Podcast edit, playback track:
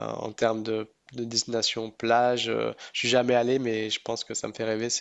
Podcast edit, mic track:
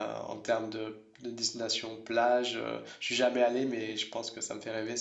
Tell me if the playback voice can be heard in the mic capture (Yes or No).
Yes